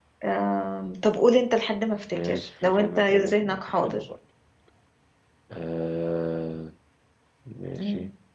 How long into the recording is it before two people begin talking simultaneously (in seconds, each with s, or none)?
2.1 s